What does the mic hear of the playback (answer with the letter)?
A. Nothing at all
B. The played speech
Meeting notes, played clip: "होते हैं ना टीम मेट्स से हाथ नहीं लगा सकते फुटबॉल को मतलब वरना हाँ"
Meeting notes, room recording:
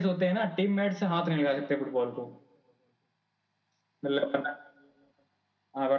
B